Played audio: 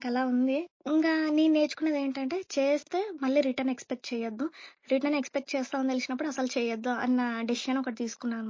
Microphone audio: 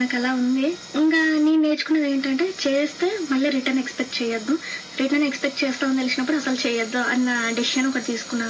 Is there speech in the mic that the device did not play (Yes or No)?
No